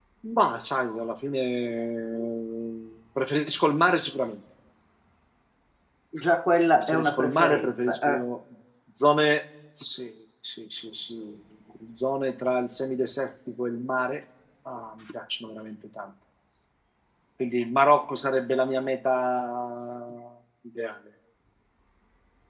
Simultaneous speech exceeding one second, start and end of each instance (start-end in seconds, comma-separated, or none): 6.7-8.2